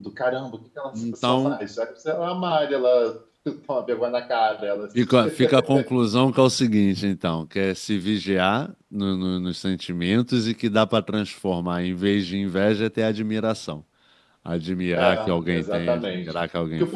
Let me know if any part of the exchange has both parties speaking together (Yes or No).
Yes